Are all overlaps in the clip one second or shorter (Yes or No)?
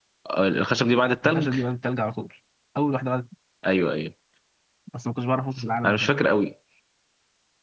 Yes